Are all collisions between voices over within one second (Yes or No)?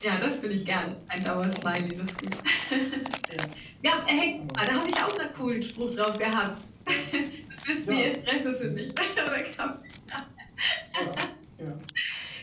Yes